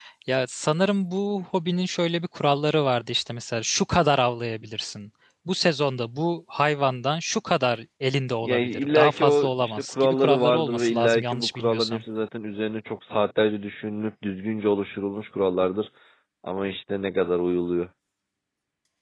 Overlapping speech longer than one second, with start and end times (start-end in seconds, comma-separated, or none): 8.4-12.0